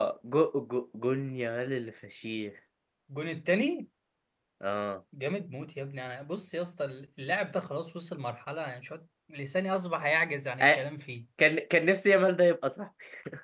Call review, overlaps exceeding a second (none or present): none